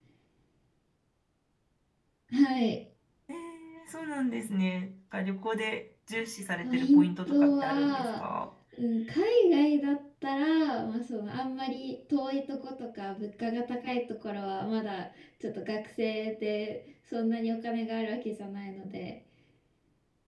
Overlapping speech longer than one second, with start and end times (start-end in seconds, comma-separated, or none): 6.6-8.2